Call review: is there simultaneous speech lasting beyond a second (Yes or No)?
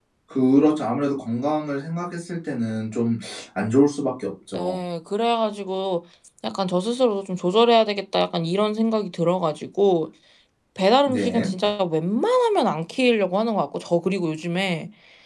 No